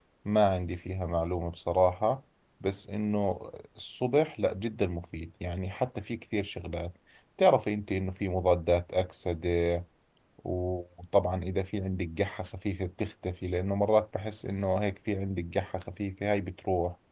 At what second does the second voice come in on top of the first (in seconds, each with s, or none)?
none